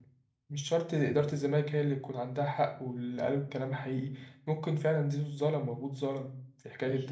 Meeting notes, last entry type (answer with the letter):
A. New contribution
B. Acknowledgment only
A